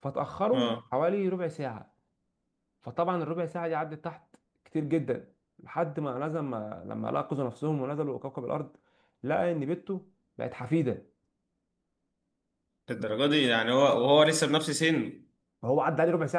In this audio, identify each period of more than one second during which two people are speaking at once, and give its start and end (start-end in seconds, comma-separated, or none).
none